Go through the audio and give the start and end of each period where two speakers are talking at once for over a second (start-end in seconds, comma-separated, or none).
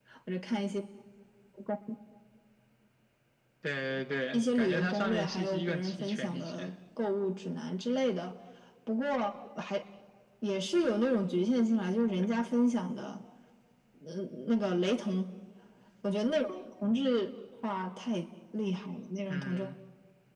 4.3-6.7